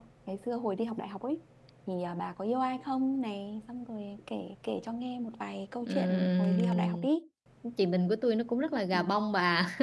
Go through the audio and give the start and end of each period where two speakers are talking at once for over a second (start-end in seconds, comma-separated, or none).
5.8-7.1